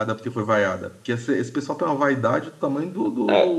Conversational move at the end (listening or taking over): taking over